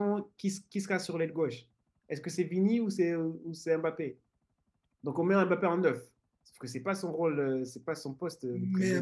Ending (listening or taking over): taking over